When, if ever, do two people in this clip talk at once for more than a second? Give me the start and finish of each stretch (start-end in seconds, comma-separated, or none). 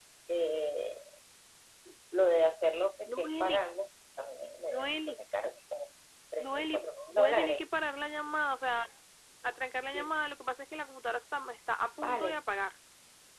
6.4-7.6